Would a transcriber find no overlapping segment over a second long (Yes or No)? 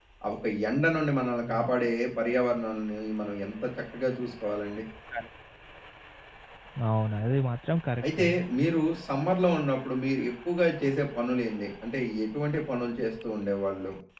Yes